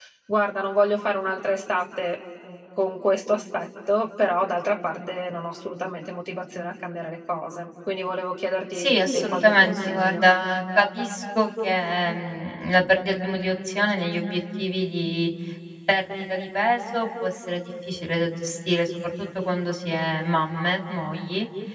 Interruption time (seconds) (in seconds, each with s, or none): 8.8 s